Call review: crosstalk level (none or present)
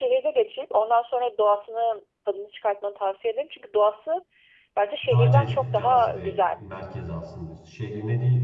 present